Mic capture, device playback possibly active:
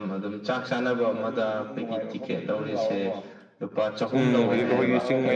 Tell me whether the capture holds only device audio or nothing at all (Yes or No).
No